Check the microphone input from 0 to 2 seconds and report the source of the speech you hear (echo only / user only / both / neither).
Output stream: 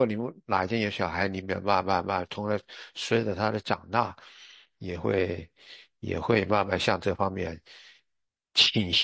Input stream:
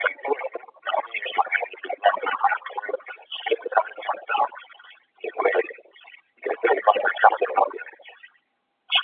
echo only